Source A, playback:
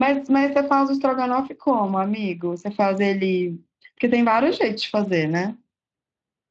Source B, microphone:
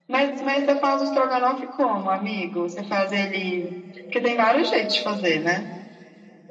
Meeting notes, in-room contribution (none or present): none